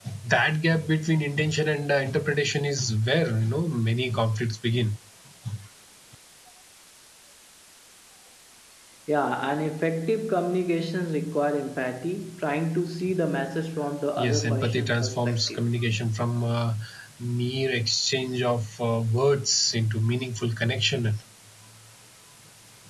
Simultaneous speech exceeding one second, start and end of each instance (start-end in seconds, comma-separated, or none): 14.2-15.6